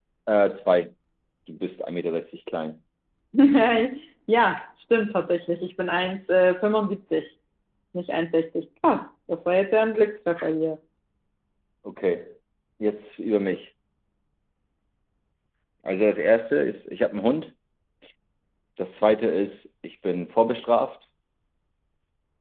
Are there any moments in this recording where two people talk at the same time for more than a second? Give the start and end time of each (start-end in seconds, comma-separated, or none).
none